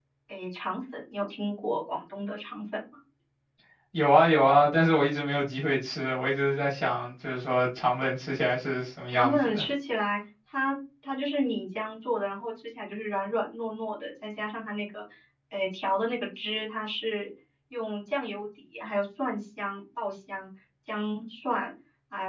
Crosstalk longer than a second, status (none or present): none